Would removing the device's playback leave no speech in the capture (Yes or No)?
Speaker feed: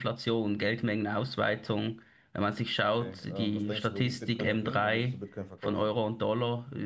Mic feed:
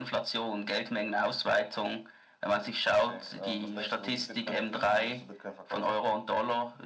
Yes